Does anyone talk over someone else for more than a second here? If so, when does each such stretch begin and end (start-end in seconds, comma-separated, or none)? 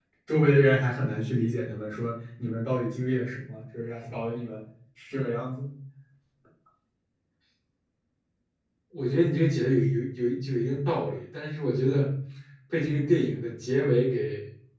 none